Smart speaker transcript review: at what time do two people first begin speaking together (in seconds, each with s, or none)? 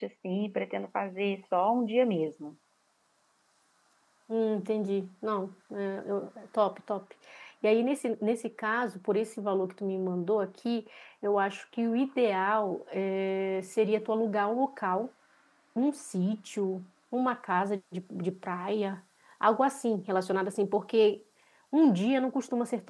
none